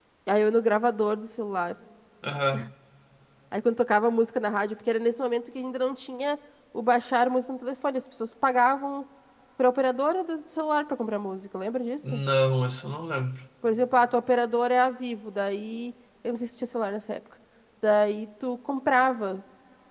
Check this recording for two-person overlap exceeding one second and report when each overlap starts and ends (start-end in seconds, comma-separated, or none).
none